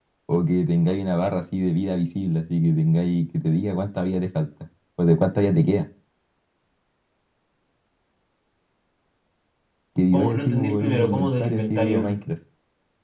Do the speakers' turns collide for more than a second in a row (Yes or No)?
Yes